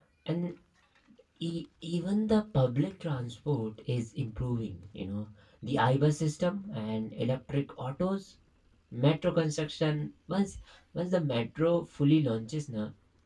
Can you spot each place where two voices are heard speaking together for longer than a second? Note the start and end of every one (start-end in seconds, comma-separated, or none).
none